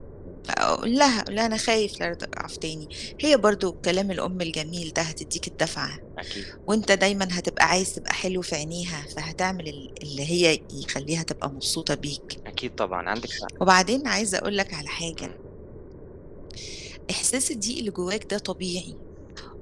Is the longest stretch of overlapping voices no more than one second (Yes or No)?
Yes